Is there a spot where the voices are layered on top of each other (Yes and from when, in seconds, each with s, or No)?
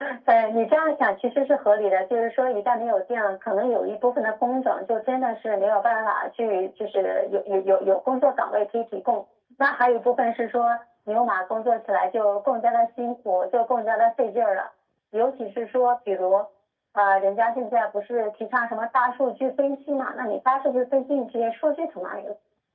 No